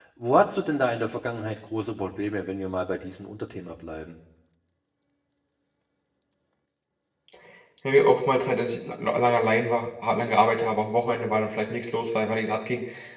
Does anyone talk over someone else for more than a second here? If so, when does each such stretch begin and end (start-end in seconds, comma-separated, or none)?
none